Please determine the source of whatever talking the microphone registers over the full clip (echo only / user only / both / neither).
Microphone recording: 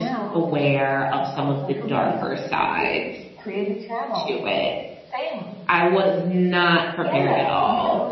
both